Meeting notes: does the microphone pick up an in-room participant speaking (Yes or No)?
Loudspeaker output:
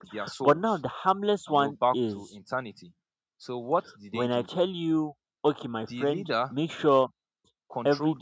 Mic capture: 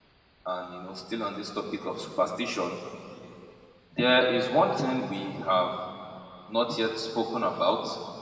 Yes